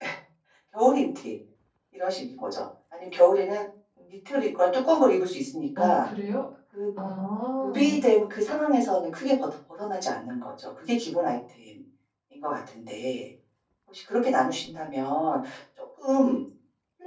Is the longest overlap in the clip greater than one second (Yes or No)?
No